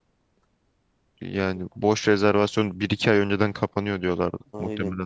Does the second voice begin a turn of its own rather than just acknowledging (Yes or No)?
Yes